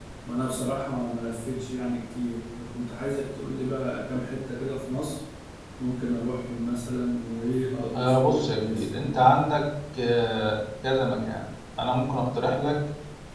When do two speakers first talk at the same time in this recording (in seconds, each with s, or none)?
7.9 s